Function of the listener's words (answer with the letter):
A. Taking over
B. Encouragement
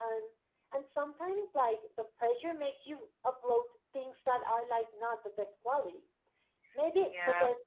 B